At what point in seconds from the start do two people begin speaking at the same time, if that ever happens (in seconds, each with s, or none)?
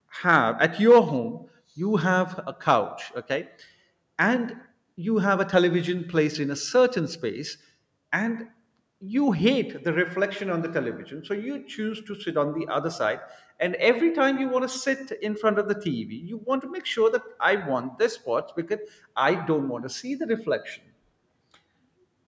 none